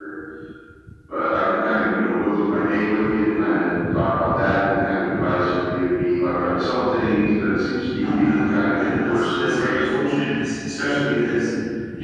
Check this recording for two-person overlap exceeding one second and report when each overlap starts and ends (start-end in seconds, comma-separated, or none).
8.0-9.8